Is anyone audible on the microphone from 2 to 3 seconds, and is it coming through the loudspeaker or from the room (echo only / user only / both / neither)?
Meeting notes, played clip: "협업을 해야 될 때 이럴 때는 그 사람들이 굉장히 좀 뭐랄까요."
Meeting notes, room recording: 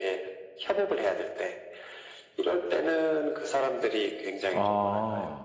echo only